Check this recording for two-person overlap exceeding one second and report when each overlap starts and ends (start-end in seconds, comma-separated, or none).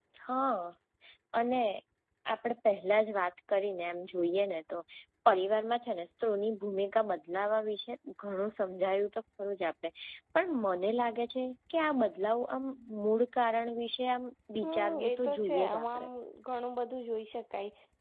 14.6-16.1